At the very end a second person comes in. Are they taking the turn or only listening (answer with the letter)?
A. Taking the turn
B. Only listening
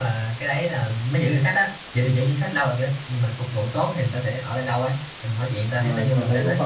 A